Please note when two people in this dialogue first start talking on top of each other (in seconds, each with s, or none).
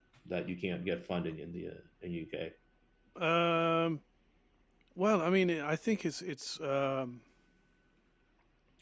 none